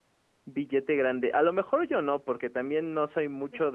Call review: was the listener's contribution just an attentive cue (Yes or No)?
Yes